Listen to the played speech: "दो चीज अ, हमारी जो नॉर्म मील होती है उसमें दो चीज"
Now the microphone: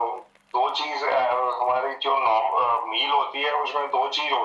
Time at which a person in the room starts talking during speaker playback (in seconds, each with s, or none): none